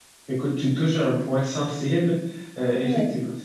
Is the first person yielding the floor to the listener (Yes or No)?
No